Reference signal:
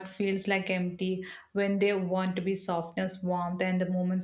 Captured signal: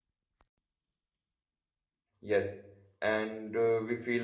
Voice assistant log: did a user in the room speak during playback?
Yes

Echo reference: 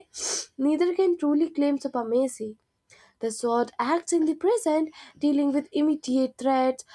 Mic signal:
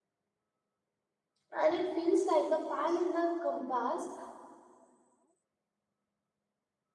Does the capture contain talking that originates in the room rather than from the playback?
Yes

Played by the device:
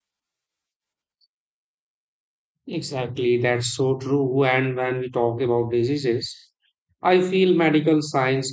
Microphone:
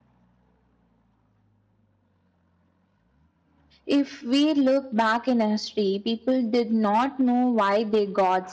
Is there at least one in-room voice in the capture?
Yes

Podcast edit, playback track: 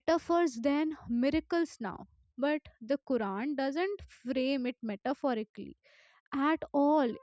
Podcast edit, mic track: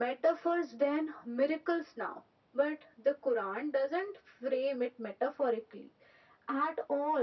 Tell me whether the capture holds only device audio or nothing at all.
Yes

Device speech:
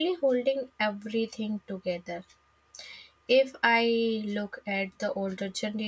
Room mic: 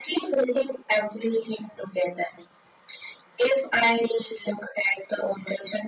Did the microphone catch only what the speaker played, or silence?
Yes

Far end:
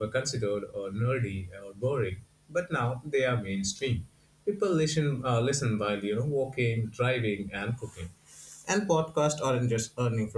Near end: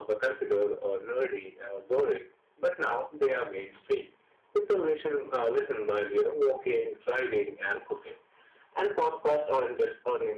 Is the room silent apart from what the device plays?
Yes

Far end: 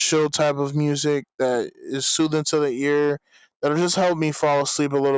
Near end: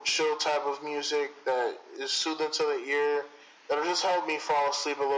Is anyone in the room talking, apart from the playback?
No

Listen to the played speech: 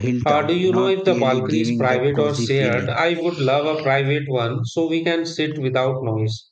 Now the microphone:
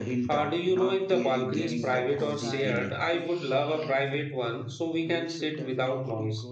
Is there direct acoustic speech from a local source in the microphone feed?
Yes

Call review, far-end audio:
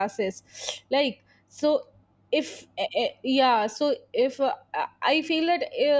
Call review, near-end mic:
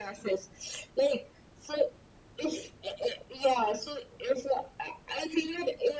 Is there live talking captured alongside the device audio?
No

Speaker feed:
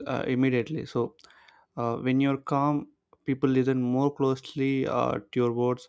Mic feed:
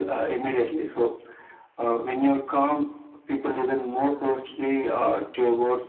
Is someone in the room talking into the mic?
No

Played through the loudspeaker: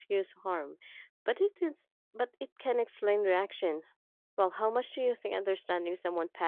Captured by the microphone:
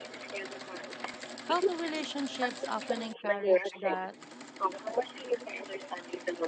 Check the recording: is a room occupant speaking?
Yes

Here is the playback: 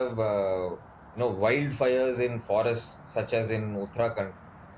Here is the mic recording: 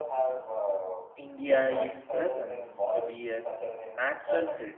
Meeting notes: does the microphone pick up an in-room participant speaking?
Yes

